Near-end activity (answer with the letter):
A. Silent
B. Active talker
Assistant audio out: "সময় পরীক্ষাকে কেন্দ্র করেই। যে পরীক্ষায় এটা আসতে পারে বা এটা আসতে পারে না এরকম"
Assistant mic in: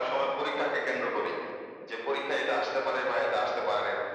A